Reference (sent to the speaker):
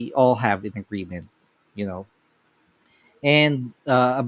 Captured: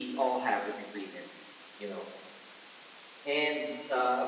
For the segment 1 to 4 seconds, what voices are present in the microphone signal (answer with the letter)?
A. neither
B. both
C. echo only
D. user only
C